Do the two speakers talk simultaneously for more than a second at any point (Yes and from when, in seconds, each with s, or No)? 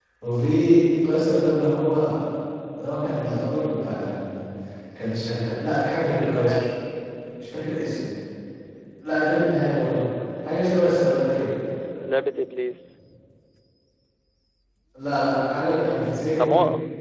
No